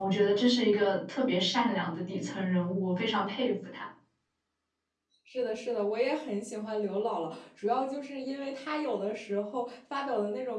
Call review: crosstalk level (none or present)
none